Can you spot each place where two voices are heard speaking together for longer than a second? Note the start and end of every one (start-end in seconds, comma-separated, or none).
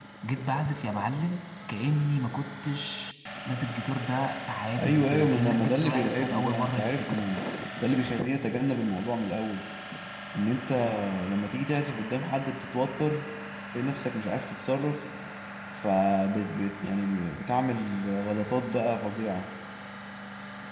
4.8-7.1